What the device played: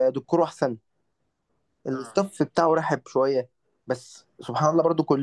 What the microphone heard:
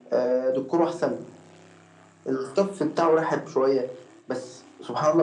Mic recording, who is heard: echo only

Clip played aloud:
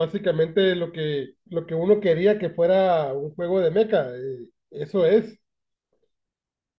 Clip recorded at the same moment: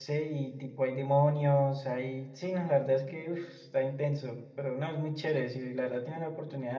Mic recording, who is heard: user only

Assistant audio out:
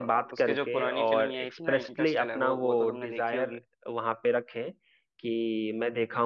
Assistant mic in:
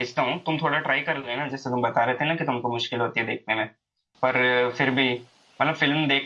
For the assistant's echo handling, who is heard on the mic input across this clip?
user only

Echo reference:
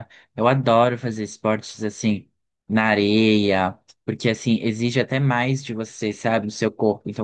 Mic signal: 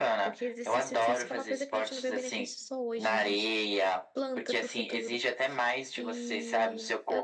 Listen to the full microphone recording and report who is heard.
both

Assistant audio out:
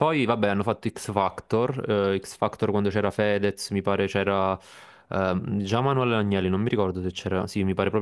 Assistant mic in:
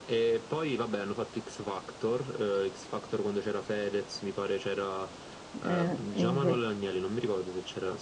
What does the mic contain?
both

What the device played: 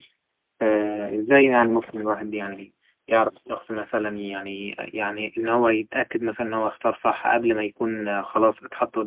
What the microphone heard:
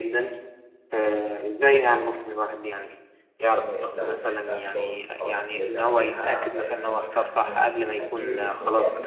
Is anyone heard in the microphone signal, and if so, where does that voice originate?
both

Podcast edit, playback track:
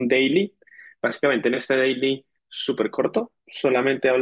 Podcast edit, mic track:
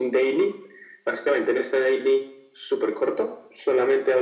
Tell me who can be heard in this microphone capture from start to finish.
echo only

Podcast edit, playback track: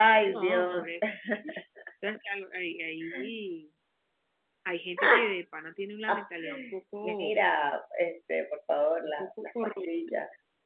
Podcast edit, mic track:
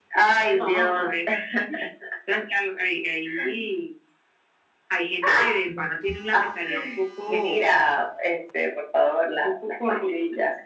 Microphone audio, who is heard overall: both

